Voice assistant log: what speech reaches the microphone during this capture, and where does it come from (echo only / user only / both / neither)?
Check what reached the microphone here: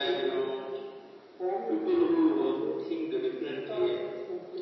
echo only